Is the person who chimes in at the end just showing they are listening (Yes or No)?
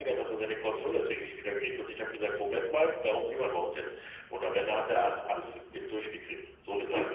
Yes